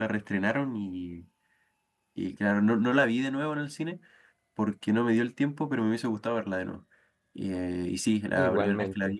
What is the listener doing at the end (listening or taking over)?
listening